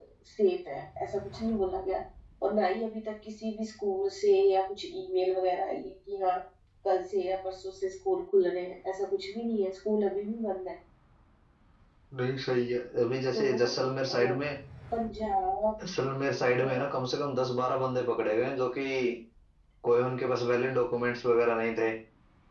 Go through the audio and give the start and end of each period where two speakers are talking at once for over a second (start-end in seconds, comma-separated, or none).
none